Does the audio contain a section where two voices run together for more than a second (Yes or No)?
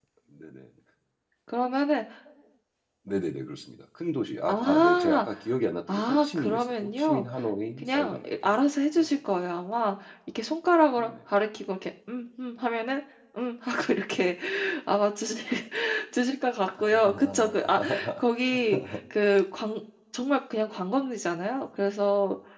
Yes